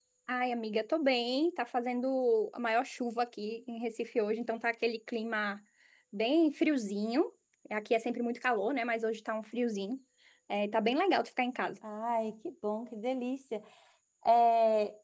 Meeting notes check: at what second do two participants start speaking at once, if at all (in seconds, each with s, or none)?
none